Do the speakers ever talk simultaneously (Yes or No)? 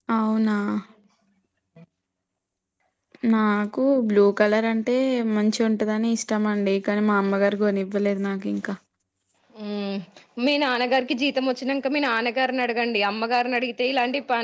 No